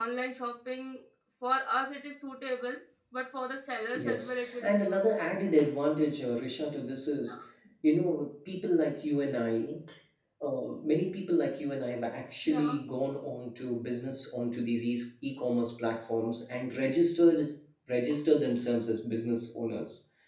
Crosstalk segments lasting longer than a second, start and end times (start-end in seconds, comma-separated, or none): 4.0-5.3